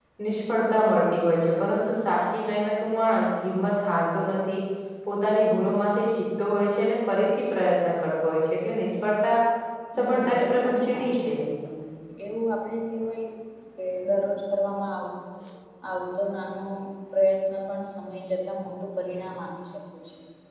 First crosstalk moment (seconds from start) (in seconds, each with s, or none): 10.0 s